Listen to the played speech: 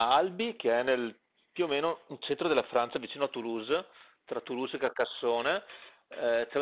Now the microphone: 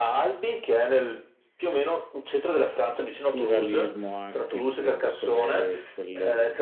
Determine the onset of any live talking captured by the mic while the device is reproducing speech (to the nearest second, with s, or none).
3 s